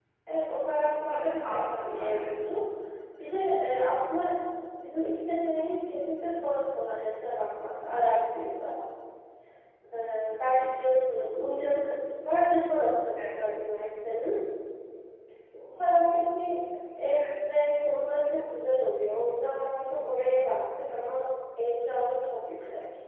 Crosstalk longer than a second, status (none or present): present